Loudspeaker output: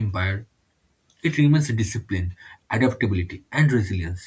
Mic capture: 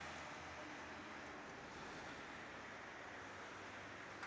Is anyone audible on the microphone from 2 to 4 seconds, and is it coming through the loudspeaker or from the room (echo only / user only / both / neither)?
neither